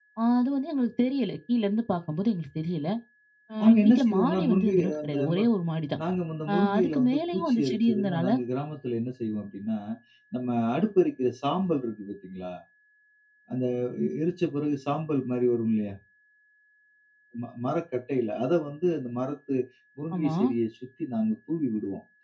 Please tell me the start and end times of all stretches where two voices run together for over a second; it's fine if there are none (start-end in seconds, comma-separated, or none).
3.6-5.4, 6.5-8.3